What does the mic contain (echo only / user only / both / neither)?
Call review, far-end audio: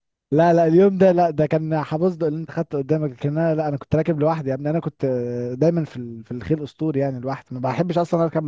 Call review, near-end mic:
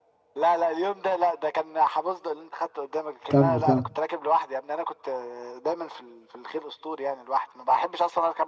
both